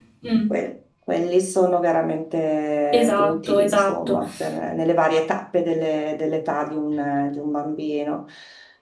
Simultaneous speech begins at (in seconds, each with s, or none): 2.9 s